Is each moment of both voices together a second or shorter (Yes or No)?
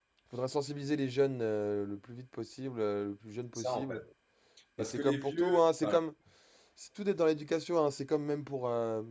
No